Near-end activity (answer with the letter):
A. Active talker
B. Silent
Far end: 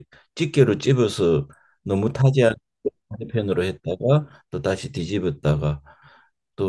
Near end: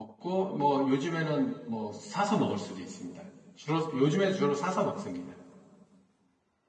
A